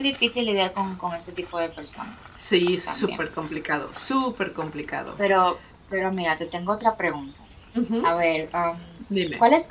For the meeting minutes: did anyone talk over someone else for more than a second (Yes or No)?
No